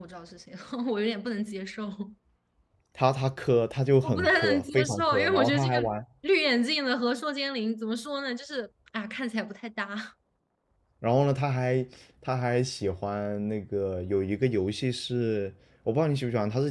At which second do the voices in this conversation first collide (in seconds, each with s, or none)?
4.0 s